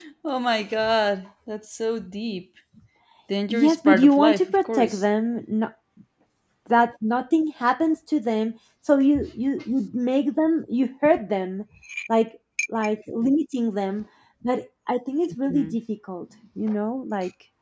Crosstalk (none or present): present